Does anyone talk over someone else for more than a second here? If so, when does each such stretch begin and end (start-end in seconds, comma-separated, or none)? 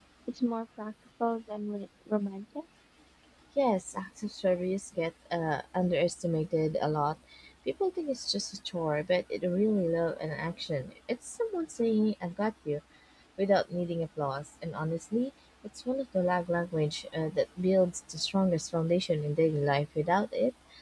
none